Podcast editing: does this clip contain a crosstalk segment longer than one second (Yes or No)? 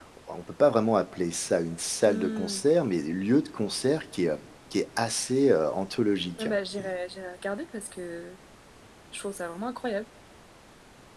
No